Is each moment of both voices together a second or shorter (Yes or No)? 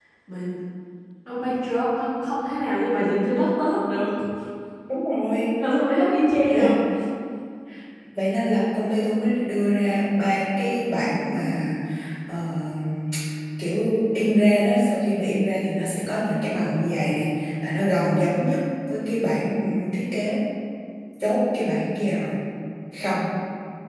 Yes